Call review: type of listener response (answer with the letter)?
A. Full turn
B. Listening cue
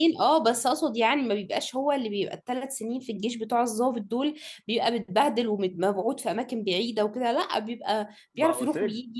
A